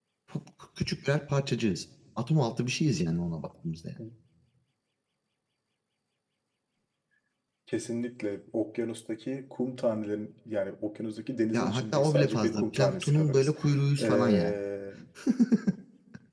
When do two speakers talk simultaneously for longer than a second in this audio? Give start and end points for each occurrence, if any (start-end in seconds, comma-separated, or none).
11.5-13.5